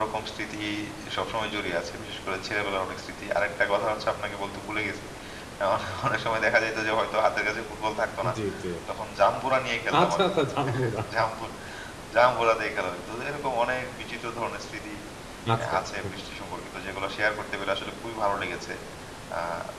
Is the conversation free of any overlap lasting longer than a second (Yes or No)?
Yes